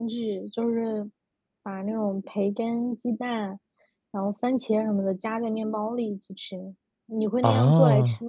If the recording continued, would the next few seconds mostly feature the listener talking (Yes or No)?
Yes